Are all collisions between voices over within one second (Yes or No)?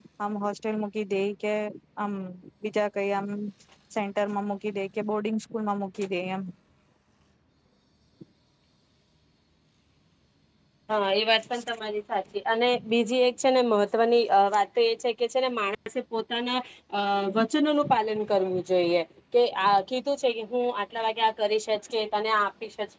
Yes